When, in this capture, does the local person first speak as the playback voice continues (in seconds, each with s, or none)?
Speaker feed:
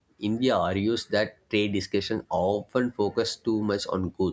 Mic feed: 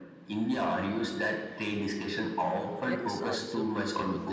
2.8 s